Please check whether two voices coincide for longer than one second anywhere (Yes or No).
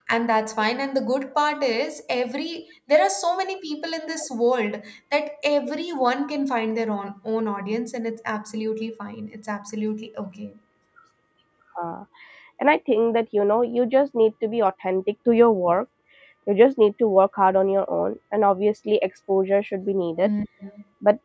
No